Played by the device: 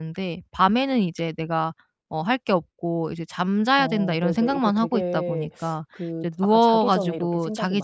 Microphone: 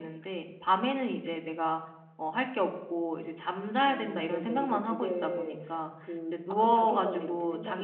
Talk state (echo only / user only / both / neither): echo only